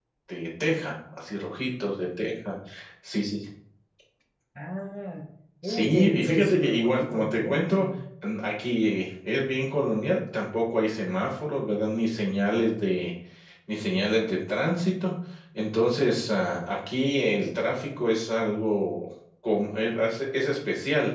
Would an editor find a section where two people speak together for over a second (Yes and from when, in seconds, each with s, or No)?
Yes, from 5.6 s